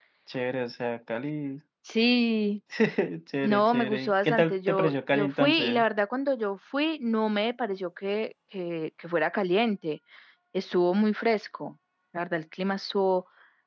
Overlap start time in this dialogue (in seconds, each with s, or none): 3.4 s